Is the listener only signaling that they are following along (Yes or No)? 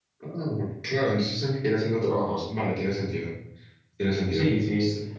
No